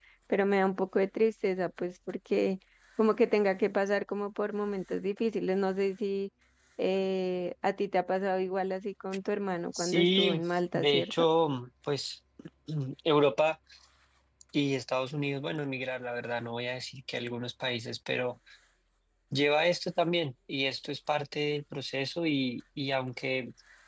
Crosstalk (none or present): present